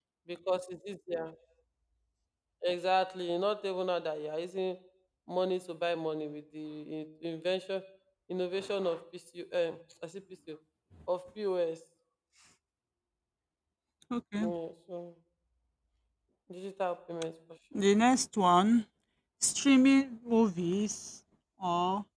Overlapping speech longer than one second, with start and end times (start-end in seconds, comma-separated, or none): none